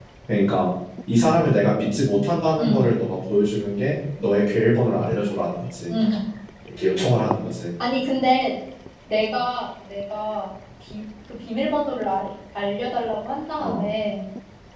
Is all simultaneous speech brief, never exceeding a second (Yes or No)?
Yes